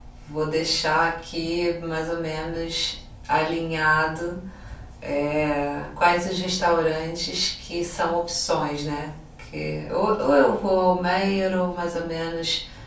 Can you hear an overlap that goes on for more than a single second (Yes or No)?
No